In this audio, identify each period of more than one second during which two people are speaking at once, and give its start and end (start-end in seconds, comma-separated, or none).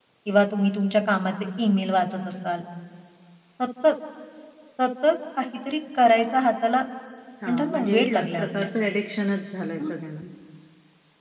7.5-8.7